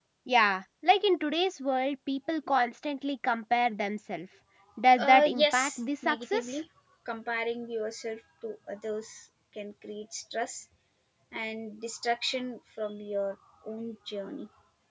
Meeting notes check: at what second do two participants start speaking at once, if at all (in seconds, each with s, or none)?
5.0 s